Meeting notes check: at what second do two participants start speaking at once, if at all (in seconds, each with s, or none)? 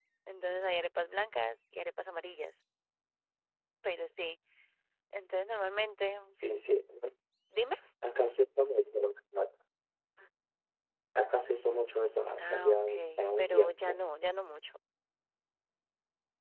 12.4 s